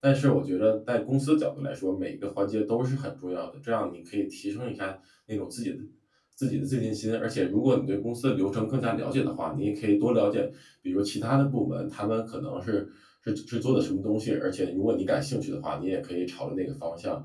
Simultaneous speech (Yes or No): No